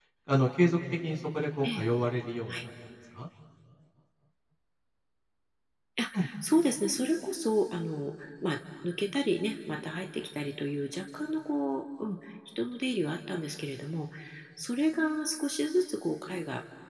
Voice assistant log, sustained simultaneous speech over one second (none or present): none